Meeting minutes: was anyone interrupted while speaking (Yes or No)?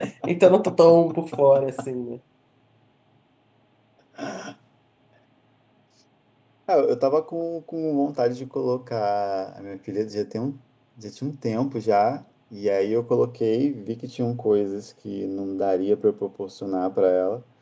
No